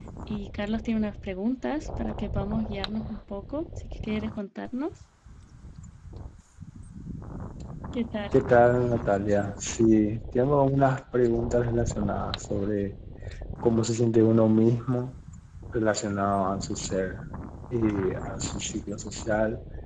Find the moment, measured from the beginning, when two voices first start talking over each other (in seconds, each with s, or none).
none